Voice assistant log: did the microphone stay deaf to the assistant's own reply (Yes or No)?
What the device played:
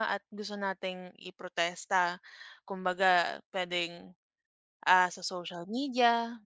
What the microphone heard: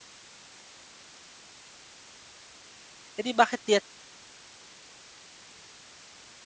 Yes